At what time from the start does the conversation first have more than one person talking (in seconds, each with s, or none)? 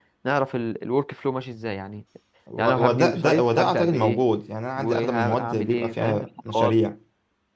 2.6 s